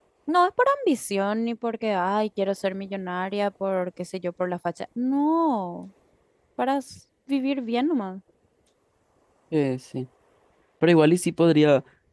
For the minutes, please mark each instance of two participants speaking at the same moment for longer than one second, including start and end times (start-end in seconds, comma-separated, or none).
none